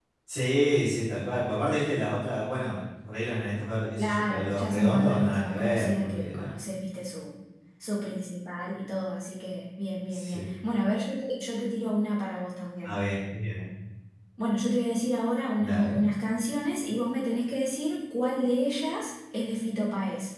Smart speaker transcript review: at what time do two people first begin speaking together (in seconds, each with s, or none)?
4.0 s